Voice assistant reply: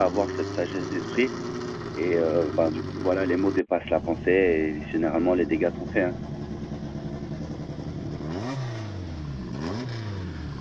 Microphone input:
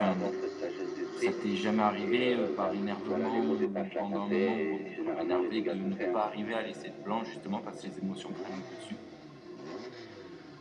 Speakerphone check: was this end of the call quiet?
No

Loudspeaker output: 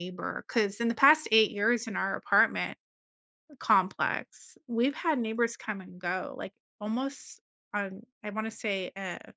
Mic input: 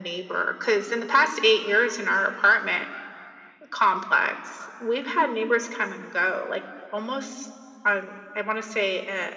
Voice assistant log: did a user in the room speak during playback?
No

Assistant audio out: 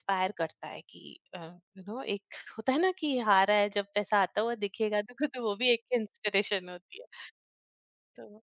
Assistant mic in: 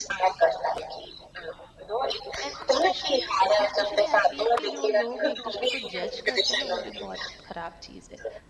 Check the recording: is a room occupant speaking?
Yes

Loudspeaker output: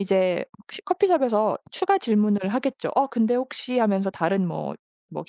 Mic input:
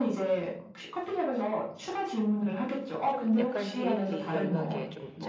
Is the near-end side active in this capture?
Yes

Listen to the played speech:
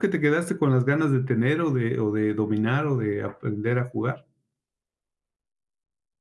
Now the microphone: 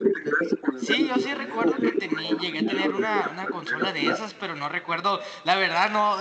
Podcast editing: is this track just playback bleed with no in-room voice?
No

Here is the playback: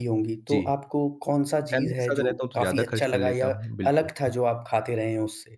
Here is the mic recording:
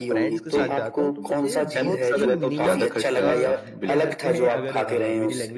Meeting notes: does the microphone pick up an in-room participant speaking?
Yes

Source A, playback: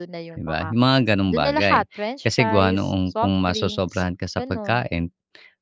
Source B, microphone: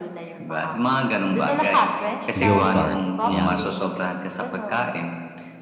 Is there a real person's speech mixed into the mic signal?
Yes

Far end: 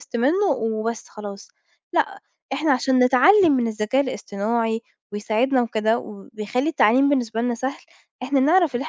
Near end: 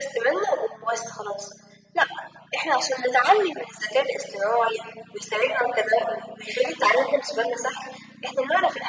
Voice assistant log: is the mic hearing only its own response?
Yes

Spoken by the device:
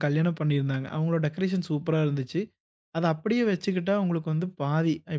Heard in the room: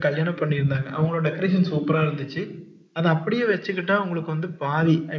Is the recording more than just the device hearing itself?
No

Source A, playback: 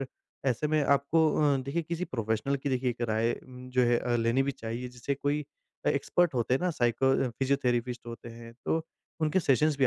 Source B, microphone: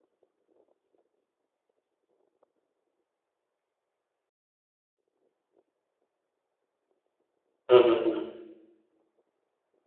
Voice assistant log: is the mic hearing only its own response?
No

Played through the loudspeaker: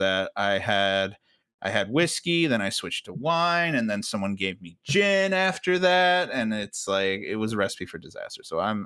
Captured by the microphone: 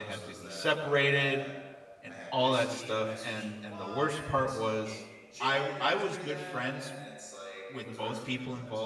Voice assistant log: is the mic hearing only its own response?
No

